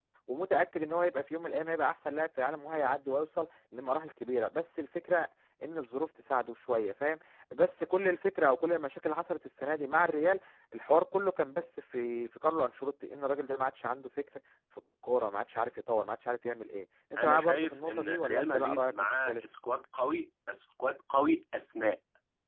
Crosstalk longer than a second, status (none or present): present